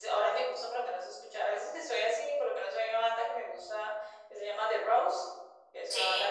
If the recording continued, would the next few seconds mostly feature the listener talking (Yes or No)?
No